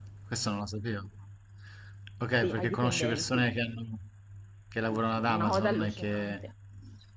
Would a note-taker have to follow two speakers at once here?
Yes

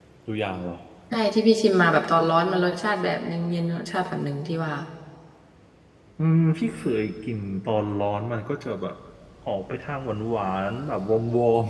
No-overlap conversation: Yes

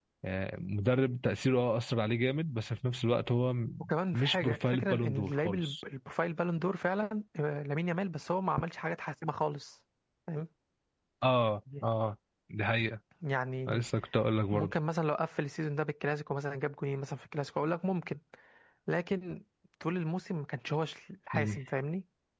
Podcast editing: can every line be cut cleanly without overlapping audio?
No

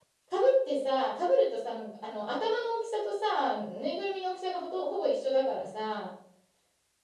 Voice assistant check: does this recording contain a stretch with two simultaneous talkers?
No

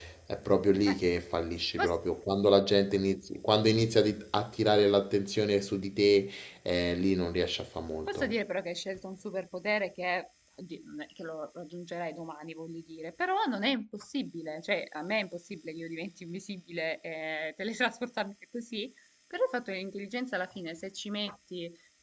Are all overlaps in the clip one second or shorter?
Yes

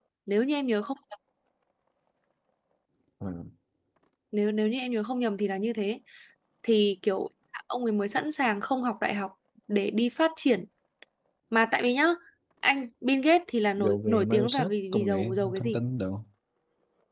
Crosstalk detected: Yes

